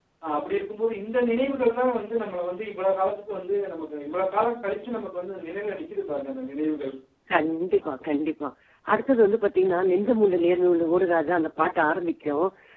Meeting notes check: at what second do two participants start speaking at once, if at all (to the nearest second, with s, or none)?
none